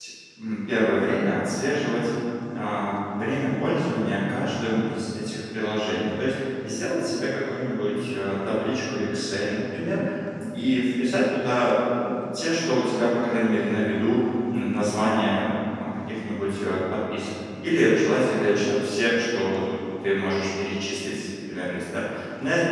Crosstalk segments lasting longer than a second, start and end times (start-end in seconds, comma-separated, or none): none